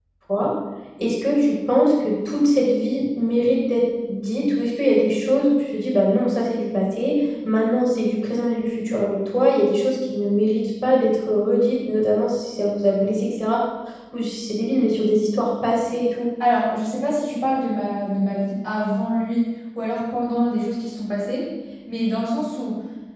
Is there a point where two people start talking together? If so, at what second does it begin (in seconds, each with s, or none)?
none